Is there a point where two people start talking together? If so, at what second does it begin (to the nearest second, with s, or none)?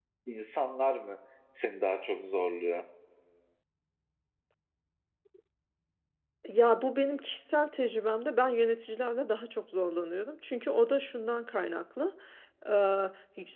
none